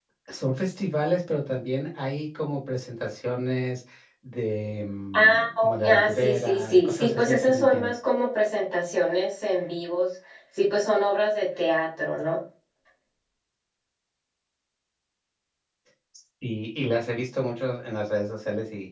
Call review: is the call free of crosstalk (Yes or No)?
No